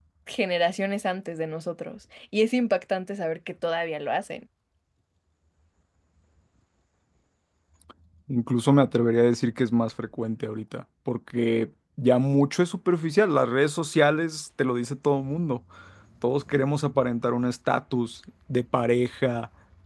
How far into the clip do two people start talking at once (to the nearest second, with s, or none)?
none